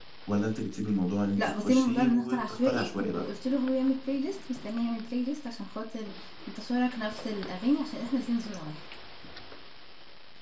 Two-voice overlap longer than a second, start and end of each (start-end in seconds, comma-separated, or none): 1.4-3.3